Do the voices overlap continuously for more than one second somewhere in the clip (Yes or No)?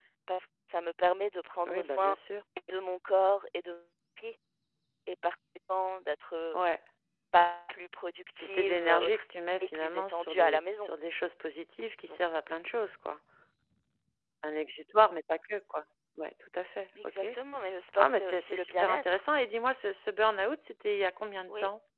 Yes